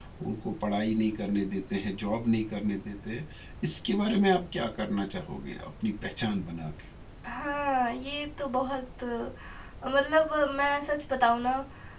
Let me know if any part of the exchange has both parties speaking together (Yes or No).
No